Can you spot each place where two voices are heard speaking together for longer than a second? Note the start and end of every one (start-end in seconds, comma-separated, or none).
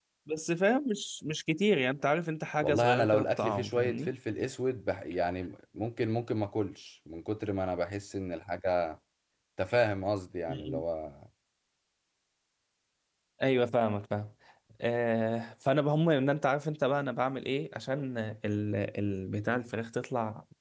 2.6-4.1